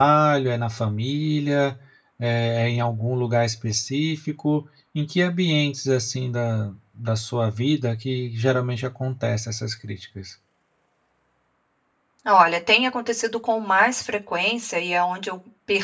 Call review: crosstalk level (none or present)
none